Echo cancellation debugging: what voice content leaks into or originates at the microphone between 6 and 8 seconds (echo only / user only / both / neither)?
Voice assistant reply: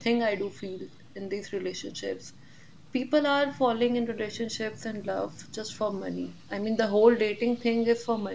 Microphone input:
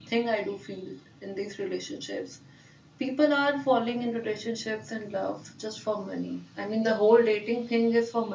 echo only